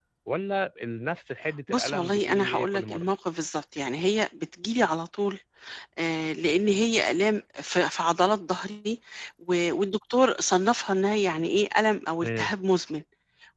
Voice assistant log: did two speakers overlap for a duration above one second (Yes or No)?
Yes